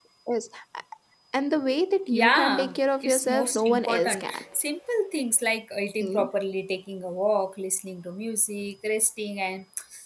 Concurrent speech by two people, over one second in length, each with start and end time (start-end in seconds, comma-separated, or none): 2.1-4.4